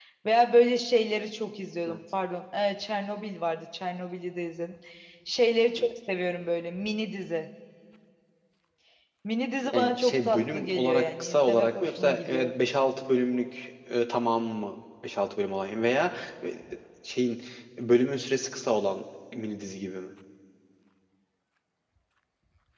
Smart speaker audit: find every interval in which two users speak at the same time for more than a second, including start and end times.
9.7-12.5

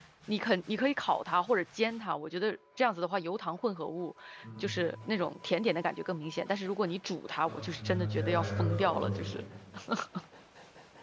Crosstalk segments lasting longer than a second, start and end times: 7.5-9.3

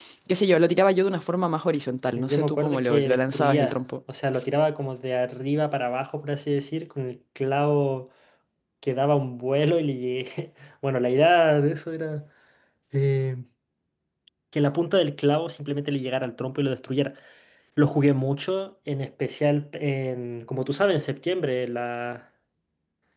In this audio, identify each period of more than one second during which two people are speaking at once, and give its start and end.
2.2-3.8

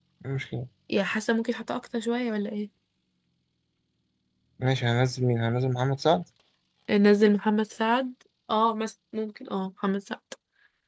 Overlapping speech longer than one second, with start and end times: none

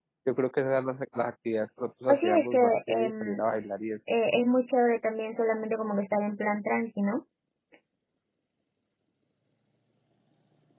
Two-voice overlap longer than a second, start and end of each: 2.1-3.4

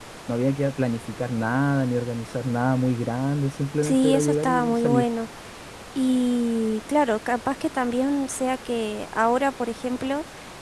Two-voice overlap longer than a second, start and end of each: 3.8-5.0

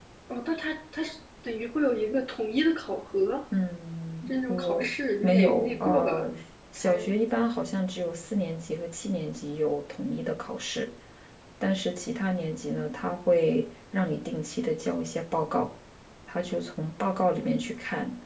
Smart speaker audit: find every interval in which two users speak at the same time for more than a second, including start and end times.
4.5-6.3

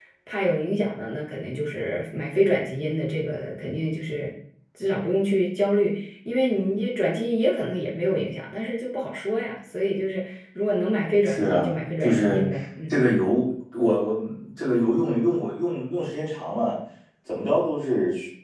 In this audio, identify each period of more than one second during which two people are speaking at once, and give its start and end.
11.2-12.5

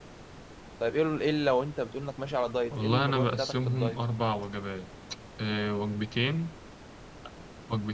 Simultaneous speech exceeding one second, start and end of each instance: 2.7-4.0

